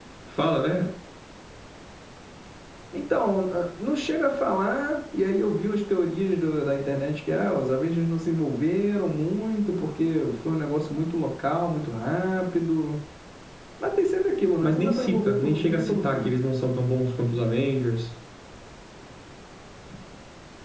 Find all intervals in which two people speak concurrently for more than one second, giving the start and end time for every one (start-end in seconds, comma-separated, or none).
14.6-16.4